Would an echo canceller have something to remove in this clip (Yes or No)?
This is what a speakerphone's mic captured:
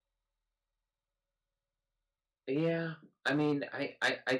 No